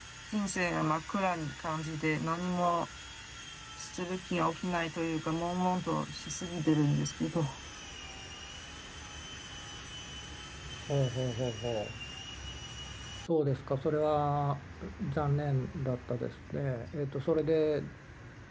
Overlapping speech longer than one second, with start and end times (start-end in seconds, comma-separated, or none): none